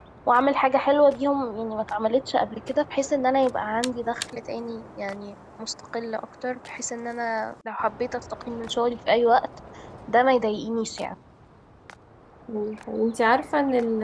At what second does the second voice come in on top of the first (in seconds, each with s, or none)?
none